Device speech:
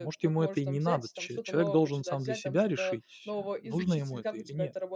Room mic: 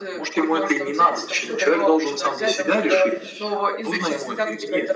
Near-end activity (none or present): none